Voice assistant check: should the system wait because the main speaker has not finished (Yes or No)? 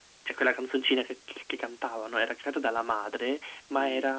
Yes